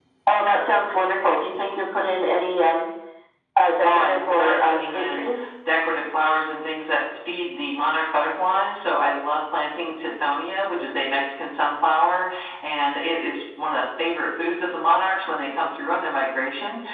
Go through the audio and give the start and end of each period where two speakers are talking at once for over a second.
3.8-5.3

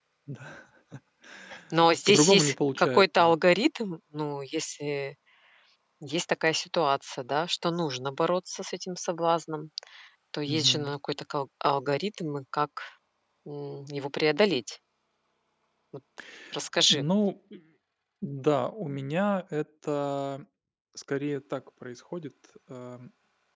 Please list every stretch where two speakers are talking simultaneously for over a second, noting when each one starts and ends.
2.1-3.3

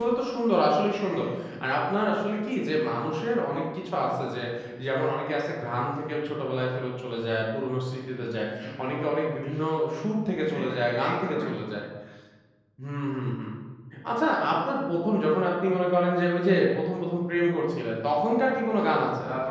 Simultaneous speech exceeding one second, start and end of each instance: 10.5-11.8

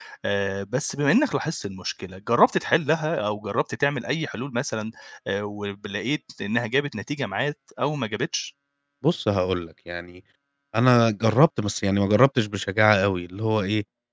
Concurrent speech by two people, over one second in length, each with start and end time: none

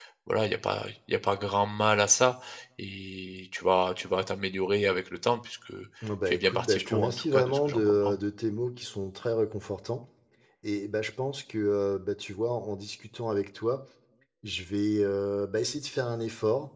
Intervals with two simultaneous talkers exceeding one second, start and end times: 6.3-8.2

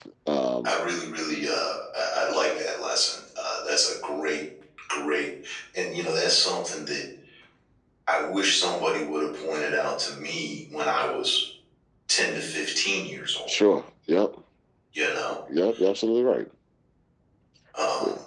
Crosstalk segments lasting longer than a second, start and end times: none

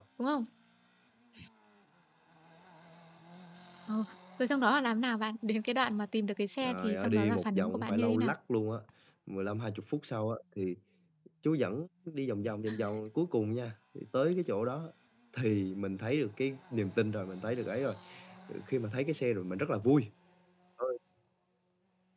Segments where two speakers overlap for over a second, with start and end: 6.6-8.3

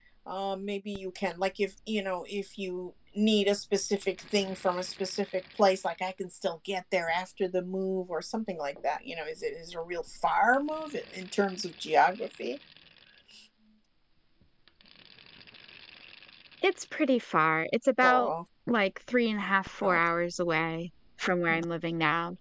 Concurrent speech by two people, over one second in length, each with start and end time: none

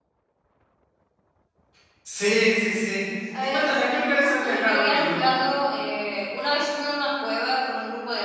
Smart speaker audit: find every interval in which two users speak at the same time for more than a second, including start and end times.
3.5-5.2

